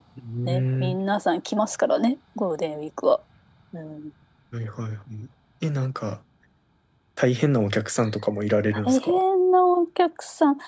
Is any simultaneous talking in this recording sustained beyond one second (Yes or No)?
No